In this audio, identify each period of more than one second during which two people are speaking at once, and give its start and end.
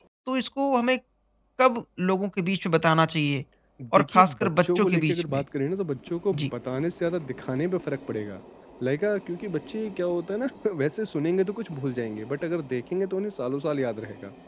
3.9-5.4

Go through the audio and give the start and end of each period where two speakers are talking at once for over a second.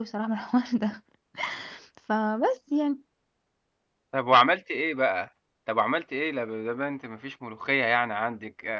none

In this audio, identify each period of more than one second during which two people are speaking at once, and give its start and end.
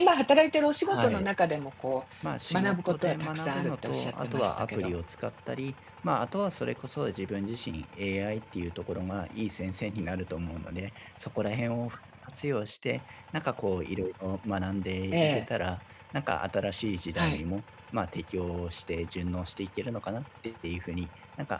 2.5-5.0

